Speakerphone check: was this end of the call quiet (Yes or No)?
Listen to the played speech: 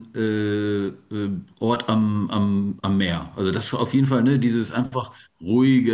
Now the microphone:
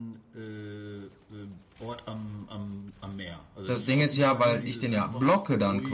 No